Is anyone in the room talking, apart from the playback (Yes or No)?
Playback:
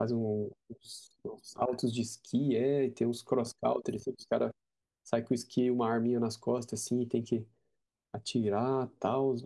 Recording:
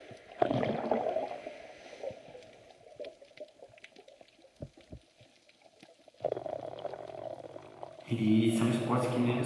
Yes